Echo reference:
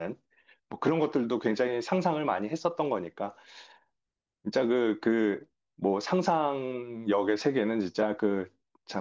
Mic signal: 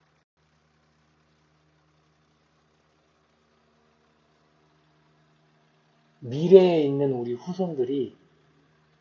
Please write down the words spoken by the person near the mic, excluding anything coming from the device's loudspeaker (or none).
미래에 있는 우리 후손들이